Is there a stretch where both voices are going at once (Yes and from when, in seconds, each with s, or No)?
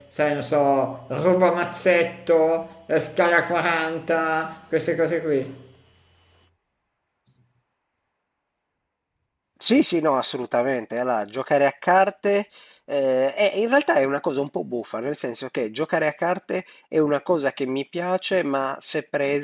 No